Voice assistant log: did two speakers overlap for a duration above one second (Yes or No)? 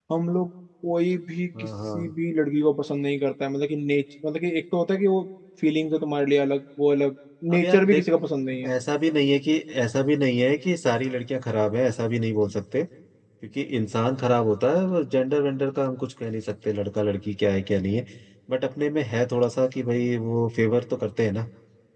No